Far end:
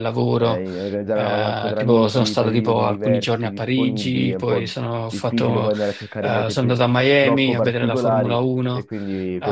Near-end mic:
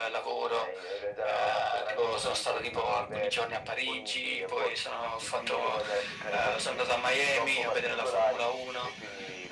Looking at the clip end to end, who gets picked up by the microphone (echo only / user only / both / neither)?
echo only